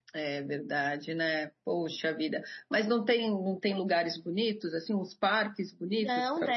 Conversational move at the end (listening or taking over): taking over